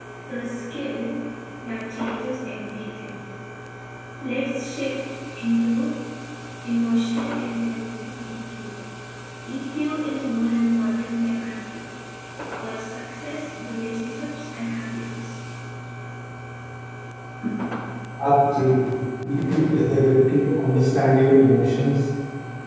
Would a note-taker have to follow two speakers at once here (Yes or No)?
No